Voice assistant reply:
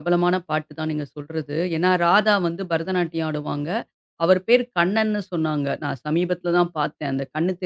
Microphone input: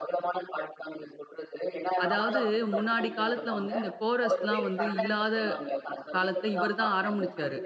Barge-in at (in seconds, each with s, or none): 2.0 s